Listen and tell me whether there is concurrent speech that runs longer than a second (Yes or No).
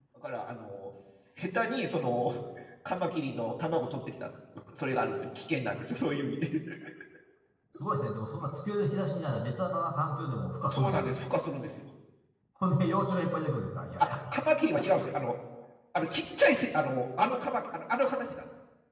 No